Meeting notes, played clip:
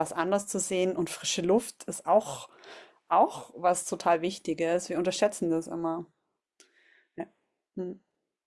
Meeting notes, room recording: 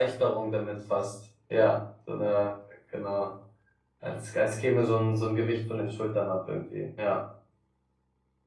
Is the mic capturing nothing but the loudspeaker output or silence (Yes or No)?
No